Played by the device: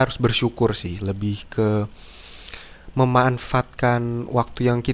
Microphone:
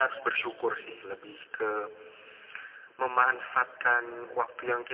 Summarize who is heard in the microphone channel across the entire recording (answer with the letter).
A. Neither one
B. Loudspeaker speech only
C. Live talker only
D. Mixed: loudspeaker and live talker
B